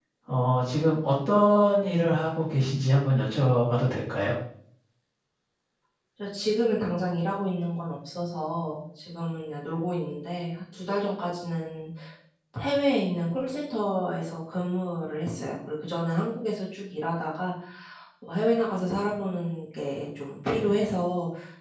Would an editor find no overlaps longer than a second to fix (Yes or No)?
Yes